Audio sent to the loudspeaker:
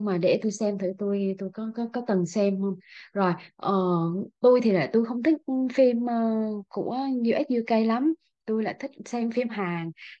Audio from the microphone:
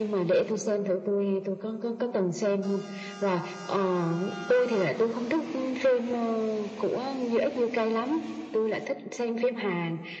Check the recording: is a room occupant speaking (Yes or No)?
No